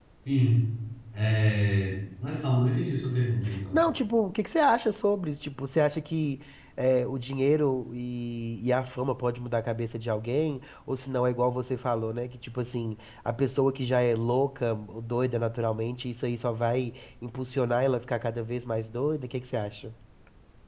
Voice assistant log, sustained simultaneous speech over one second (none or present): none